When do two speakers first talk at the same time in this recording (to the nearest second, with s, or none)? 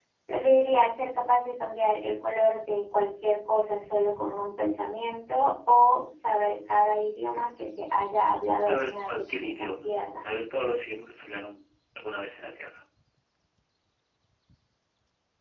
9 s